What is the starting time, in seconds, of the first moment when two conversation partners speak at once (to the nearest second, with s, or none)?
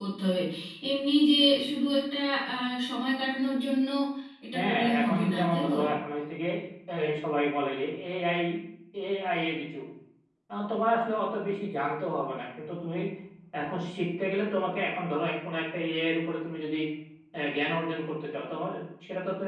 5 s